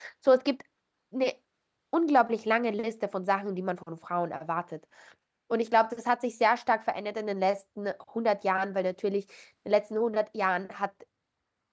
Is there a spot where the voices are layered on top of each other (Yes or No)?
No